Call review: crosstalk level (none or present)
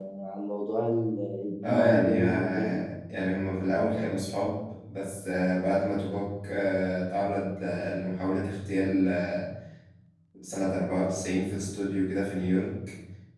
present